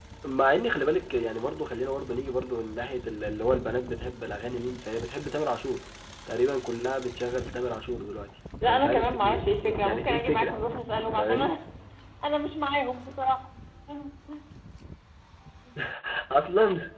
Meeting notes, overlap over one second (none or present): present